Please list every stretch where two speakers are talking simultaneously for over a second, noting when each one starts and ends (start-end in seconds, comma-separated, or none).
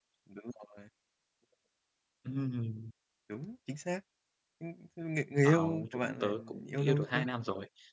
5.5-7.2